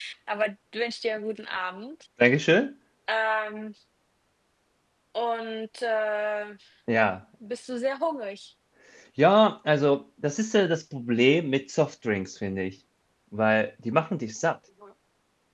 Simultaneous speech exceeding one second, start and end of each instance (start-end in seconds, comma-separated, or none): none